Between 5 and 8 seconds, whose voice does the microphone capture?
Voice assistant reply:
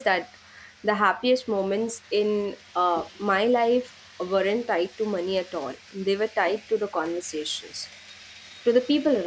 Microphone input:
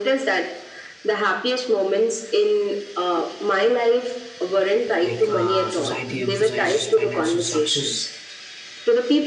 both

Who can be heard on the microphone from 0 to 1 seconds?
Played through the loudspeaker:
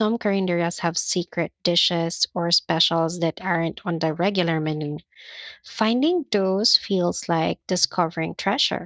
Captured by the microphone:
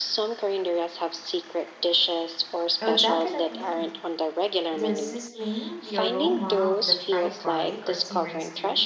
echo only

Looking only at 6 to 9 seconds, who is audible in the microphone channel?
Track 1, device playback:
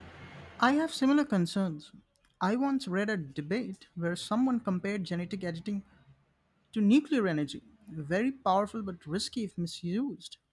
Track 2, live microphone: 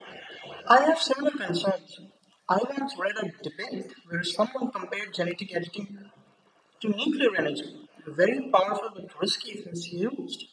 echo only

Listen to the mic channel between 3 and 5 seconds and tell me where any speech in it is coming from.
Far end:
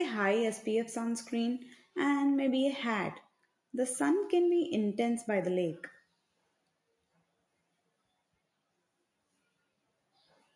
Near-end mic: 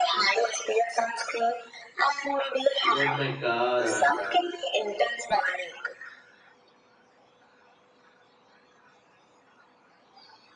both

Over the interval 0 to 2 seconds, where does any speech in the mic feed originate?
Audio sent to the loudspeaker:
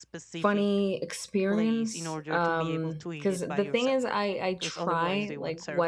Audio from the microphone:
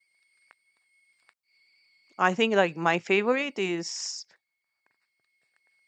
neither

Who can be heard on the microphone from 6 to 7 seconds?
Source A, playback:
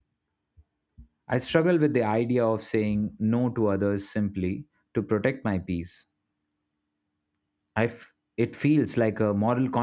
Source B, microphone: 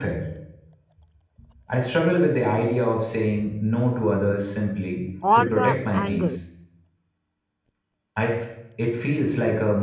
both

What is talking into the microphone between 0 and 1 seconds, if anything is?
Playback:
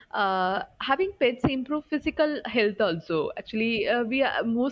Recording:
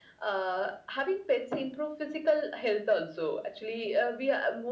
echo only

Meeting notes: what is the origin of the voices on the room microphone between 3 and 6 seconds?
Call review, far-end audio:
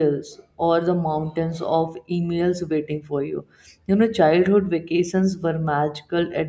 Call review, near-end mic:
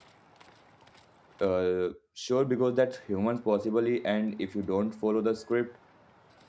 user only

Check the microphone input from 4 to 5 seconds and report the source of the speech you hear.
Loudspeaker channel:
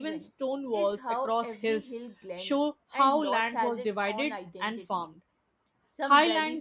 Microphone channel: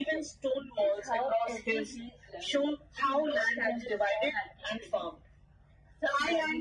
echo only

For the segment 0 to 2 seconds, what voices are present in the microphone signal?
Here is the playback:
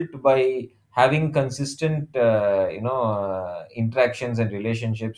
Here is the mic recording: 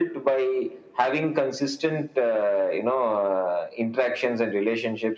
echo only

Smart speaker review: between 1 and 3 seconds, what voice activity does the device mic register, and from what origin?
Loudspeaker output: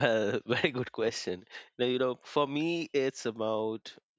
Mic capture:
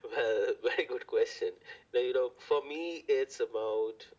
echo only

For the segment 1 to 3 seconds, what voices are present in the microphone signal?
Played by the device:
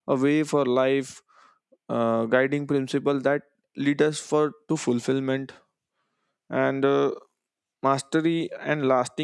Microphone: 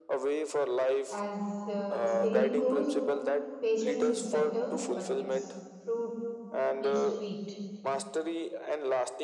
both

